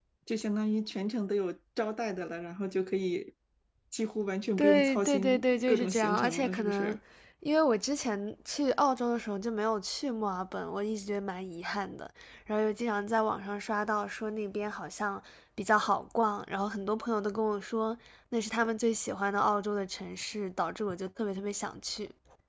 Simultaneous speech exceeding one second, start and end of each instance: 4.6-7.0

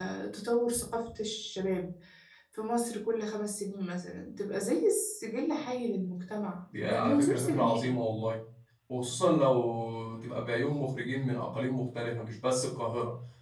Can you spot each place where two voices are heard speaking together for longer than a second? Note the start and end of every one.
6.7-7.9

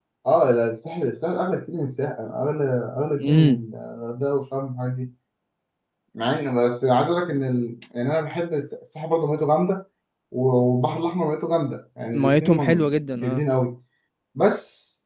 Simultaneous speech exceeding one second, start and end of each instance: 12.1-13.4

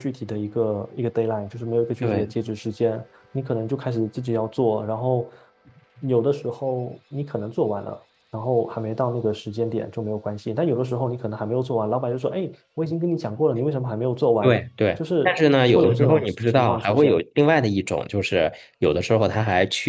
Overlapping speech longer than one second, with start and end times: 15.7-17.2

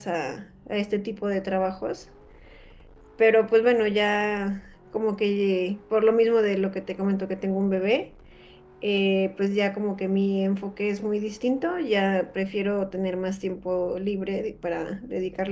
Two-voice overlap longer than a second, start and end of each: none

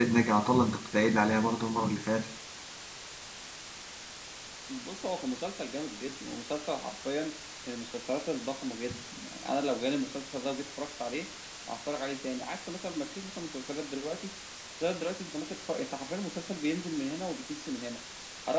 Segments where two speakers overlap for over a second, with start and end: none

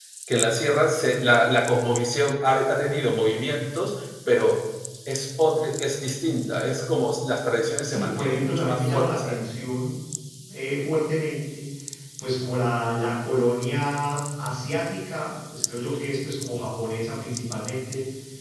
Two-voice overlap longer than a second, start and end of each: 7.9-9.4

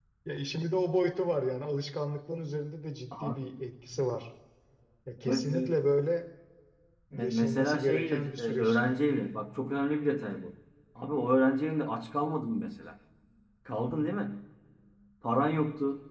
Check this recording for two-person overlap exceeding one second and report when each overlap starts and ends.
7.1-8.8

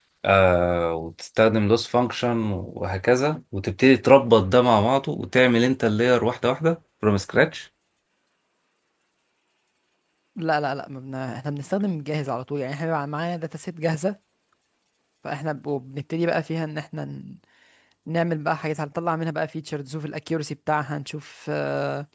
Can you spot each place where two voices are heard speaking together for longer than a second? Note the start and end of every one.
none

